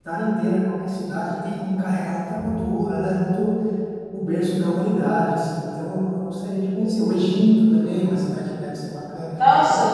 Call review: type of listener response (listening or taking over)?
taking over